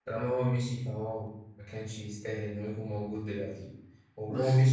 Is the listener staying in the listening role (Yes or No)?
Yes